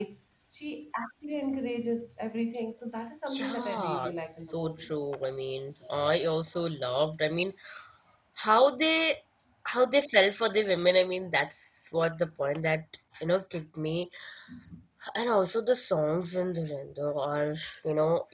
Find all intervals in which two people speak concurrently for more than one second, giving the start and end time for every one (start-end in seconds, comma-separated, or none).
3.4-4.9